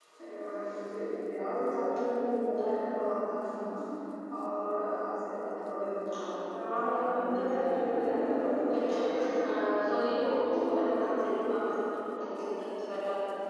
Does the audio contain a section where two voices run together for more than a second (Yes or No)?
Yes